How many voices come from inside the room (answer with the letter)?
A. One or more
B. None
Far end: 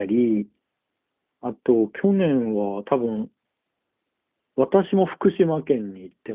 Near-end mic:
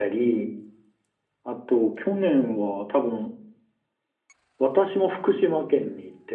B